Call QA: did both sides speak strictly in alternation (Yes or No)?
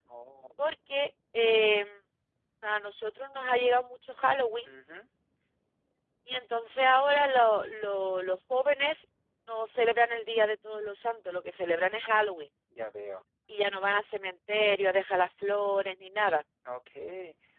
Yes